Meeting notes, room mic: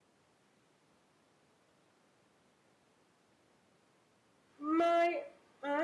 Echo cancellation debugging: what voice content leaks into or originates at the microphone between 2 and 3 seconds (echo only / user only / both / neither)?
neither